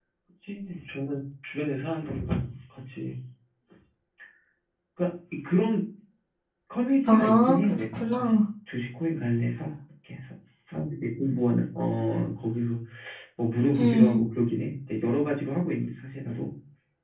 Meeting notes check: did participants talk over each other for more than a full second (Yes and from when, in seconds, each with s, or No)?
Yes, from 7.0 s